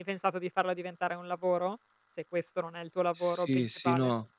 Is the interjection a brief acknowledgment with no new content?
No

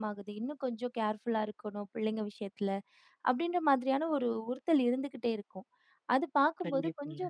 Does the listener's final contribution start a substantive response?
No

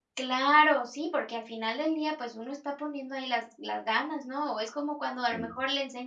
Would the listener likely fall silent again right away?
Yes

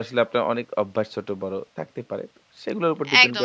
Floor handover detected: Yes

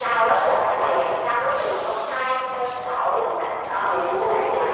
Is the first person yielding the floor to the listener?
Yes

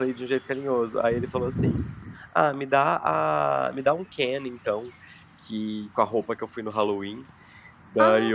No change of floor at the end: Yes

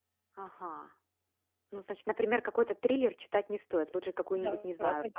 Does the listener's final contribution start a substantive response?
Yes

